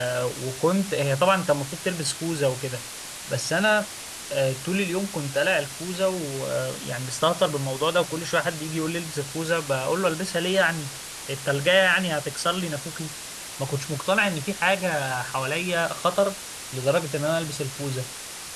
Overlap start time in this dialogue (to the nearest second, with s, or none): none